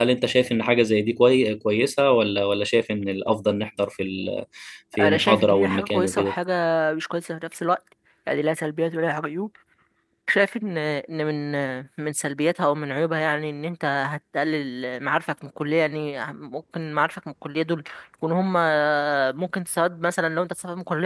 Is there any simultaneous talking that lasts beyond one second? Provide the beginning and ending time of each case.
5.0-6.3

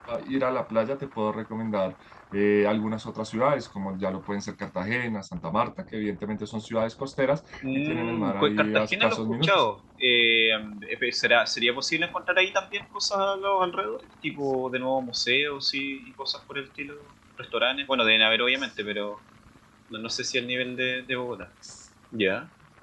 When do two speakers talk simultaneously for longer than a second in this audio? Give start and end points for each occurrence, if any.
7.7-9.6

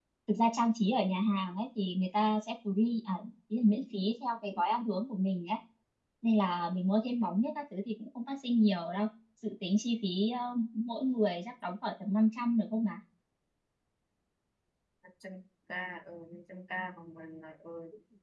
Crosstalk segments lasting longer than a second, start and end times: none

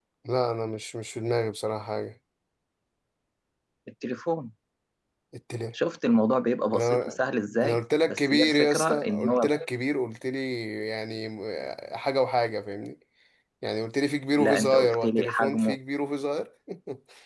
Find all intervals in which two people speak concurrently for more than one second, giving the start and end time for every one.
7.6-9.5, 14.4-15.8

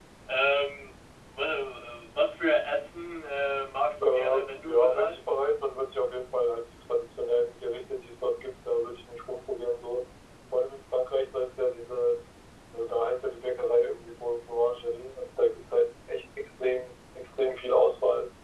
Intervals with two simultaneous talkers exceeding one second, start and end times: 4.0-5.3

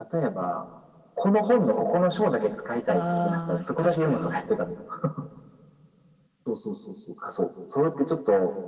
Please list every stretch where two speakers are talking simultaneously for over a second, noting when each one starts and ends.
2.9-4.4

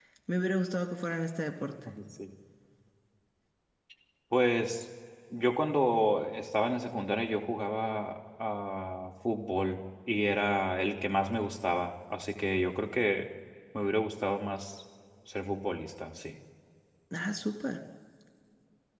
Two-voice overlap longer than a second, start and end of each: none

